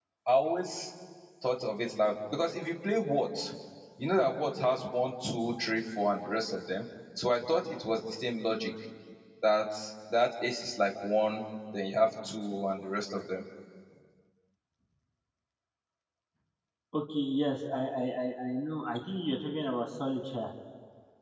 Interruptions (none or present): none